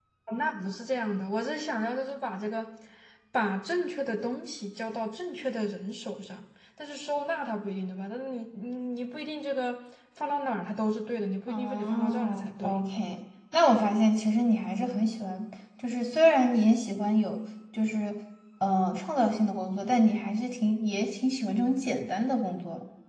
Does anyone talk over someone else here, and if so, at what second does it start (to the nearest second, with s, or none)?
11 s